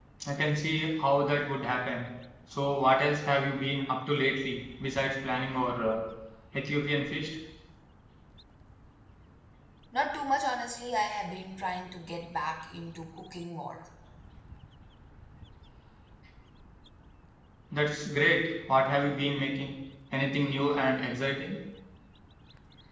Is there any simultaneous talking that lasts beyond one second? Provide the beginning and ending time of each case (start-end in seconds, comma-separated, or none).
none